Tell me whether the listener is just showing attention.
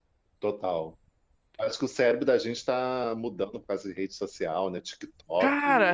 No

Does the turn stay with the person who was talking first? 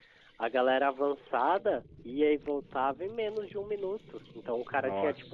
Yes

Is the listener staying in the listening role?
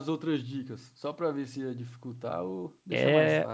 No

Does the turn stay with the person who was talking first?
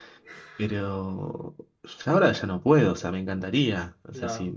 Yes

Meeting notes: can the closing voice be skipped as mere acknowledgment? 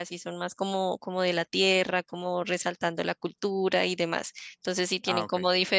Yes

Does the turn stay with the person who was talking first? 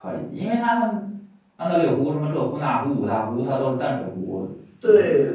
No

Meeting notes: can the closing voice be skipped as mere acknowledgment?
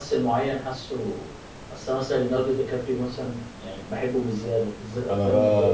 No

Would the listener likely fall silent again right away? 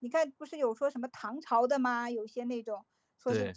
Yes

